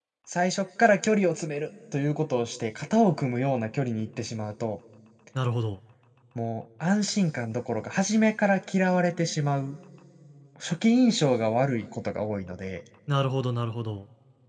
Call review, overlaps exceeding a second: none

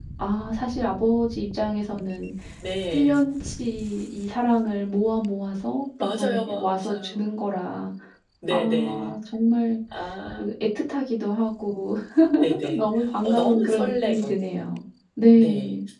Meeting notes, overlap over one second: present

